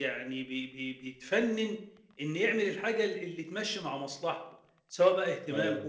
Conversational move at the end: listening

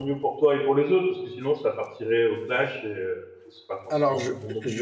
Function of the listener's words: taking over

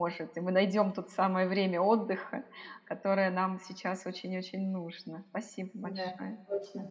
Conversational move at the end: taking over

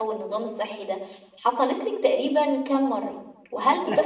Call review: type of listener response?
listening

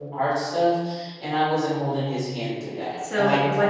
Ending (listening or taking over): taking over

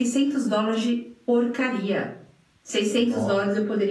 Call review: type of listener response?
listening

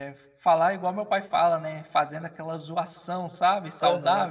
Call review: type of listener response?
taking over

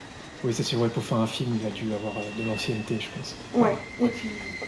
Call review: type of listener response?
taking over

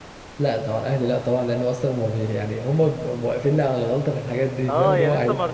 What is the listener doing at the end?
taking over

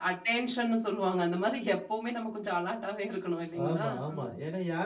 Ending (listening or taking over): taking over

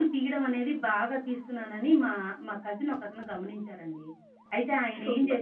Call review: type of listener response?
taking over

